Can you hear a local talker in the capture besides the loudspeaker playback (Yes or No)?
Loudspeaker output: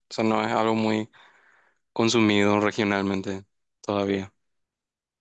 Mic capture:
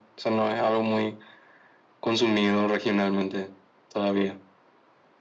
No